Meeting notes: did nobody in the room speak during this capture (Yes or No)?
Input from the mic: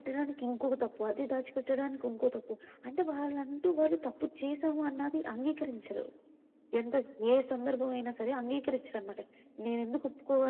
Yes